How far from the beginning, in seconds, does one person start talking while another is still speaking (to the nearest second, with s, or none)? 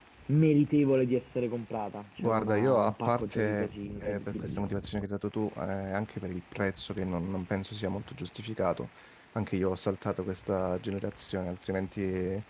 2 s